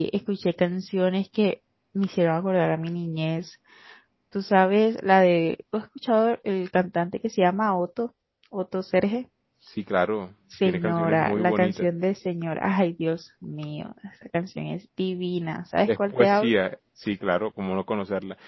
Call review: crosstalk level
present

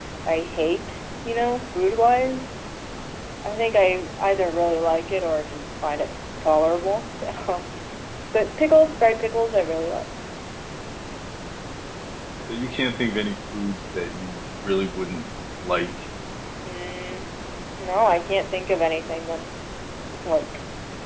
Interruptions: none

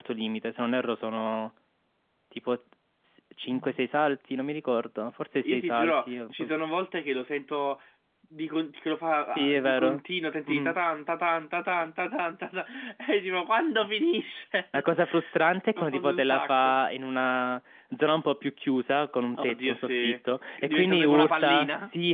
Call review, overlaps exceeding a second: present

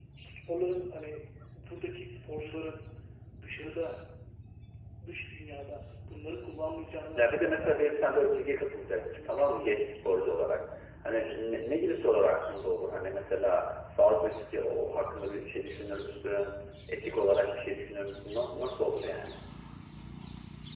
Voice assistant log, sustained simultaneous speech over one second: present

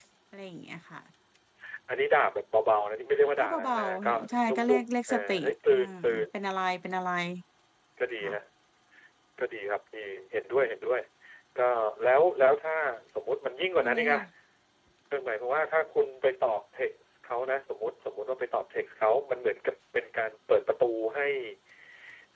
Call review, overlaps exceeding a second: present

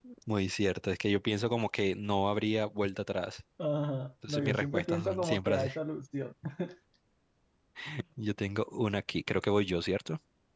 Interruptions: present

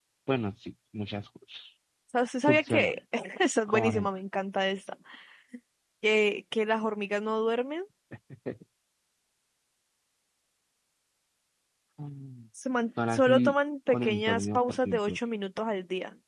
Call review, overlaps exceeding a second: present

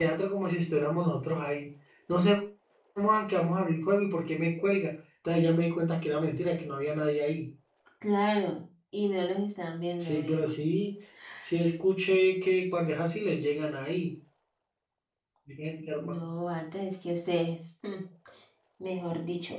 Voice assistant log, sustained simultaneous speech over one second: none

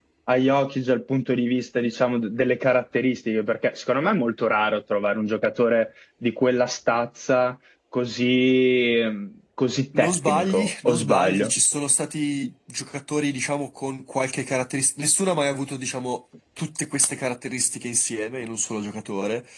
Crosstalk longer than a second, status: present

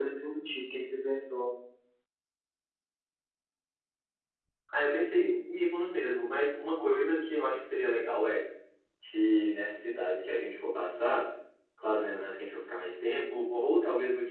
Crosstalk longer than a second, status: none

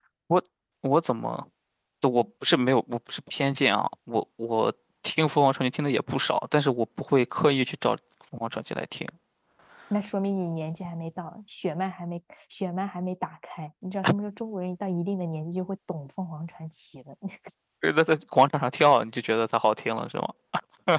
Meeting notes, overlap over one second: none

